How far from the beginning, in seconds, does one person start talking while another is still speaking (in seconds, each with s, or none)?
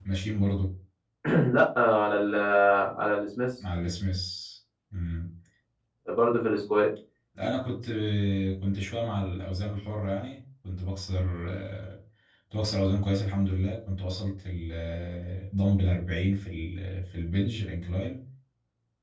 none